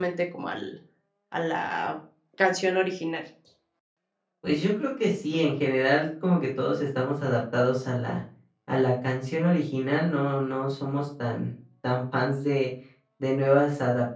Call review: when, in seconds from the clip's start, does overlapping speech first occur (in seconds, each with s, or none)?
none